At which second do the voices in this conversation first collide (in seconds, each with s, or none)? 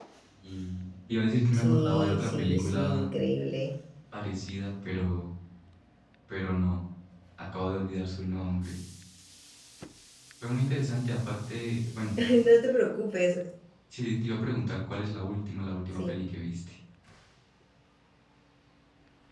1.5 s